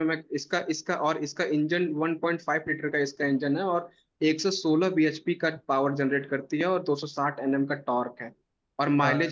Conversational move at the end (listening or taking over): listening